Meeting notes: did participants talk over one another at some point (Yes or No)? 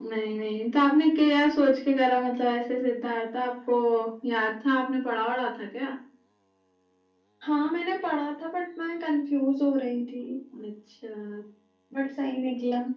No